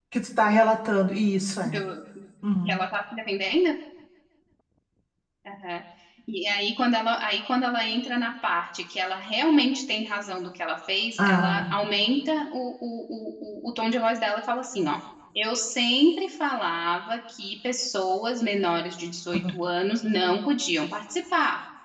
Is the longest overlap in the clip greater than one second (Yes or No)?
No